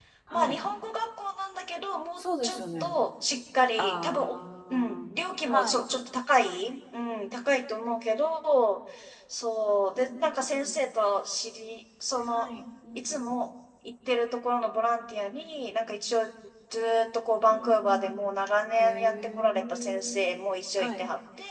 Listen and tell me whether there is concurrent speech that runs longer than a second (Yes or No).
Yes